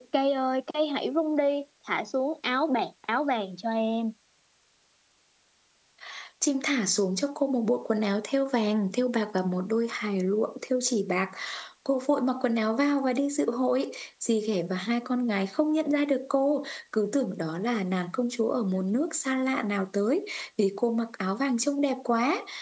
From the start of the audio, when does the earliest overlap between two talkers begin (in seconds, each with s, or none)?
none